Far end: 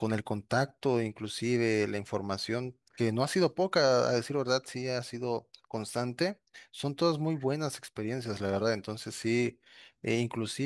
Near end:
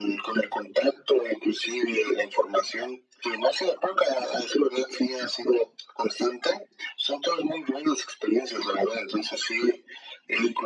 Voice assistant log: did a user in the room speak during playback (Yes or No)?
No